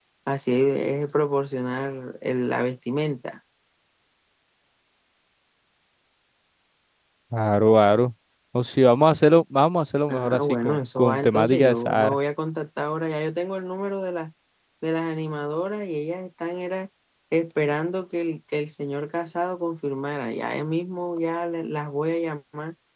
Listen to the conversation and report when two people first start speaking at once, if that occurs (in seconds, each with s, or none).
10.1 s